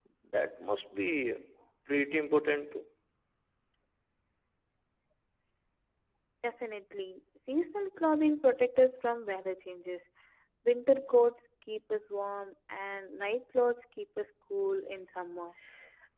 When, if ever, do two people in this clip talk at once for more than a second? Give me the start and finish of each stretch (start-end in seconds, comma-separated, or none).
none